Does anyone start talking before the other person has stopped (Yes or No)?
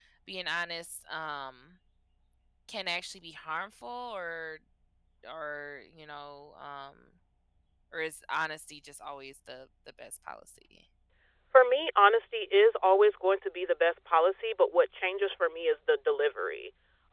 No